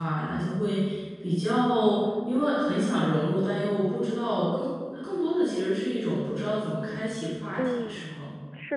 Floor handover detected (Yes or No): Yes